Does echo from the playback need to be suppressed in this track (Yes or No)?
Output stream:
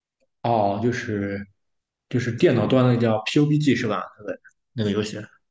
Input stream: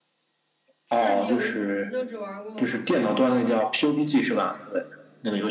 Yes